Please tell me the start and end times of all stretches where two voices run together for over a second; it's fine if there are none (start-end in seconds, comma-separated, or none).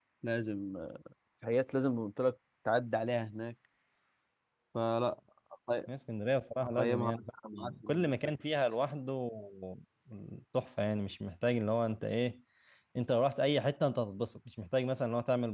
6.8-8.2